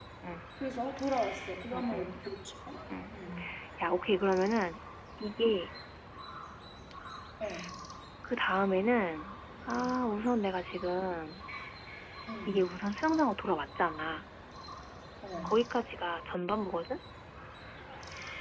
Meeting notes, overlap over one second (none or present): none